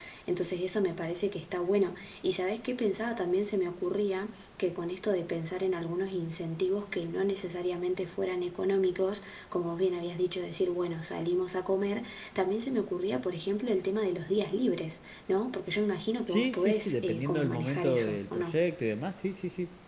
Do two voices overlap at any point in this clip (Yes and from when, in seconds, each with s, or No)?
Yes, from 16.3 s